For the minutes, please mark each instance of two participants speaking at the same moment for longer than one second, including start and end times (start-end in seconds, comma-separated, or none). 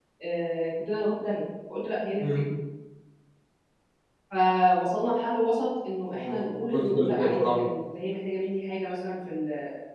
6.1-7.7